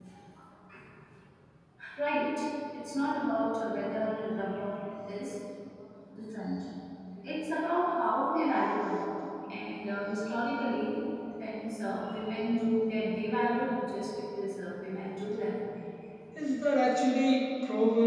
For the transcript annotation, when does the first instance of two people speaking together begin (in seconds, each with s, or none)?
none